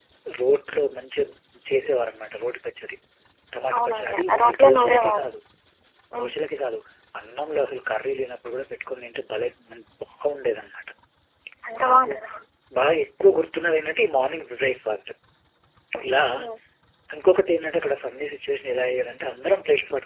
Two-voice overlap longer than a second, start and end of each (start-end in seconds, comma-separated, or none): 3.8-5.3